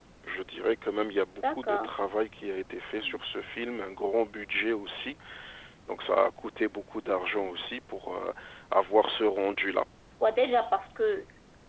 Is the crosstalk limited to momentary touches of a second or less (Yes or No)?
Yes